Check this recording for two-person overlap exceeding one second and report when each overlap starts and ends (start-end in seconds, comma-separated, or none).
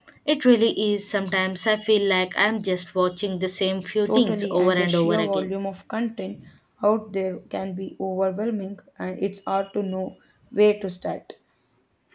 4.0-5.5